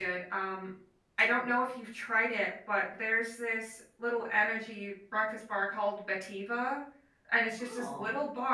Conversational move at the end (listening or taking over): listening